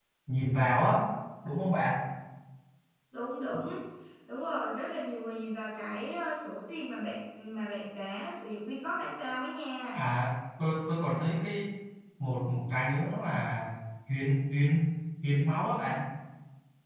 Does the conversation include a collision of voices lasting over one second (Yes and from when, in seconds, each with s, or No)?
No